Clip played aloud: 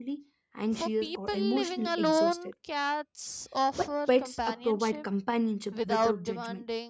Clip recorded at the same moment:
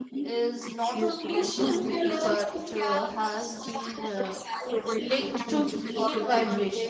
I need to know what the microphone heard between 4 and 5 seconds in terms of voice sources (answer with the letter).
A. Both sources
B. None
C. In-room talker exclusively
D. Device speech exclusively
A